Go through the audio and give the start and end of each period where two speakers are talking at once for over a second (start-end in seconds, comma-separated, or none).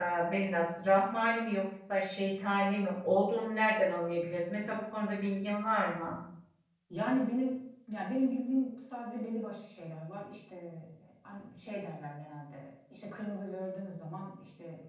none